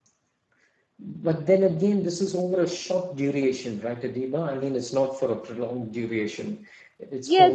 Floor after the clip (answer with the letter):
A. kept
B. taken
B